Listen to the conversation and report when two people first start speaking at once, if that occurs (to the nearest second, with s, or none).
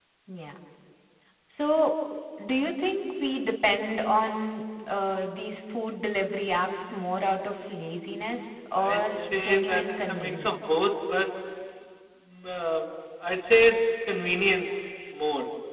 9 s